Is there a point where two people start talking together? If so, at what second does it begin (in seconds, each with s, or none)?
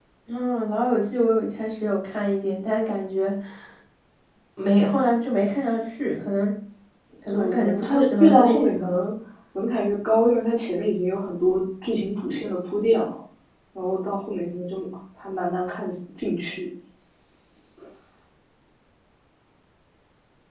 7.3 s